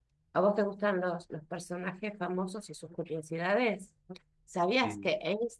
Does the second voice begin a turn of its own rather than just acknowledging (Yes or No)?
No